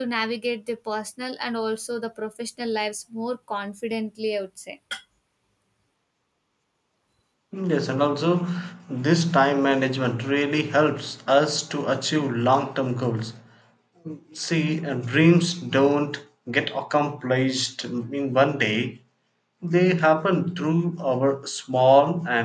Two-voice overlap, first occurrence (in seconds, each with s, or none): none